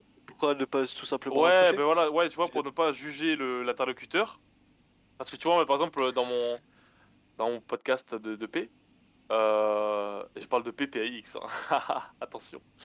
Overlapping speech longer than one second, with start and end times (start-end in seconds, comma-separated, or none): none